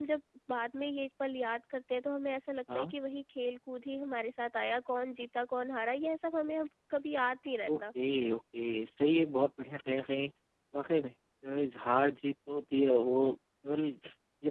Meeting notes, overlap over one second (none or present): none